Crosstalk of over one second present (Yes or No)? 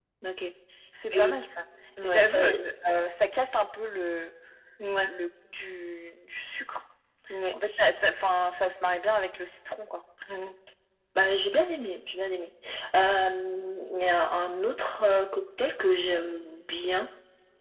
No